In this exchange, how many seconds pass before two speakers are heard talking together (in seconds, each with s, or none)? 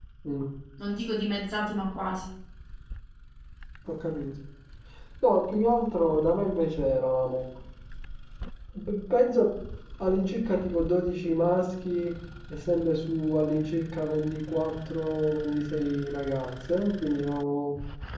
none